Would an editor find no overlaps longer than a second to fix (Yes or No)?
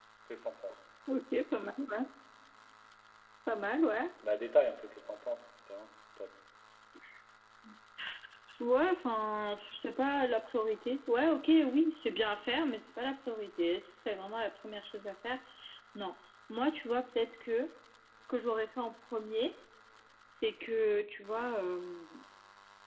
Yes